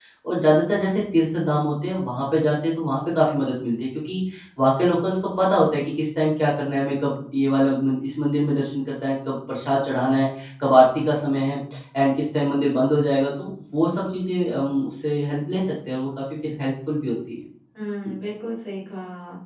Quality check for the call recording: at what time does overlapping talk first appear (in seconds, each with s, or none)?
none